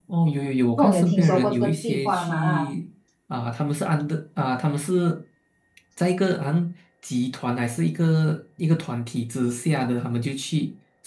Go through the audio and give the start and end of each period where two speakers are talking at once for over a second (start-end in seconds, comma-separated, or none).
0.8-2.7